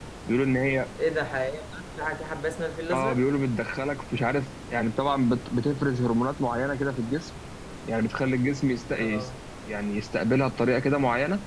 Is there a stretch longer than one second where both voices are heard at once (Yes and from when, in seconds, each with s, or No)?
No